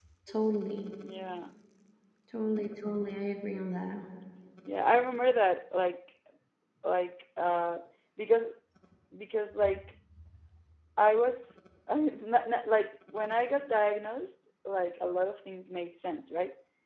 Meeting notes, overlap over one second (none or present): none